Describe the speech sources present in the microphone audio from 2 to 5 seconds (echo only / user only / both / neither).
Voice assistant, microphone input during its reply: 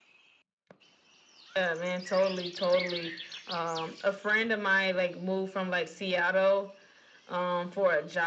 echo only